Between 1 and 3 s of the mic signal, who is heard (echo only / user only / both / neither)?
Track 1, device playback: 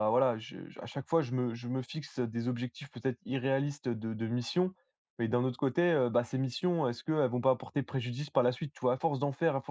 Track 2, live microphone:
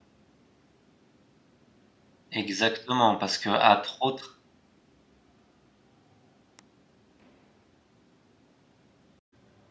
user only